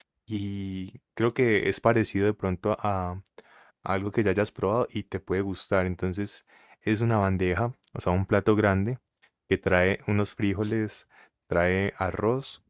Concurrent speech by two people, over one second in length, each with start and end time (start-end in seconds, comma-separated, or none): none